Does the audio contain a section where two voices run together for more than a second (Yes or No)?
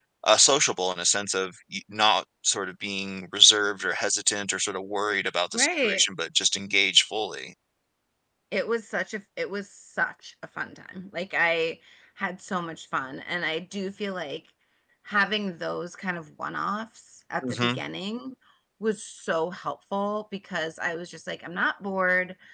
No